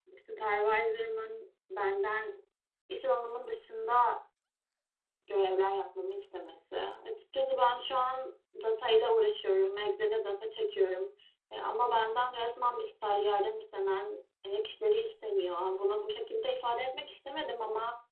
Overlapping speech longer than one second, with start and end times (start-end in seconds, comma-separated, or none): none